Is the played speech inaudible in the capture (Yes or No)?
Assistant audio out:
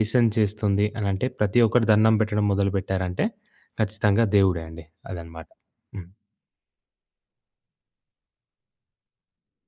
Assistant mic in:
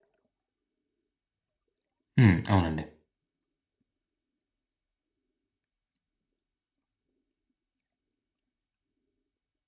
Yes